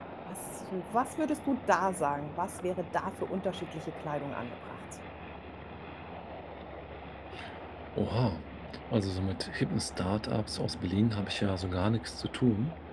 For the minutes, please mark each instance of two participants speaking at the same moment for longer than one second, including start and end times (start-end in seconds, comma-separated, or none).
none